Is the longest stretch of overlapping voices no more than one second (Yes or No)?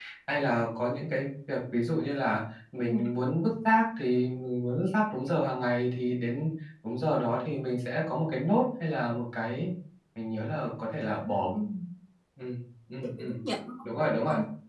Yes